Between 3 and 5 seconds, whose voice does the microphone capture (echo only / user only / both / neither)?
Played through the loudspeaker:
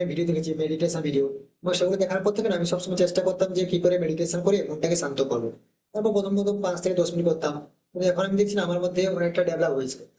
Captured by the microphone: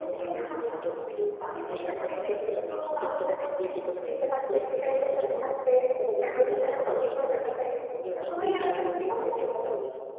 both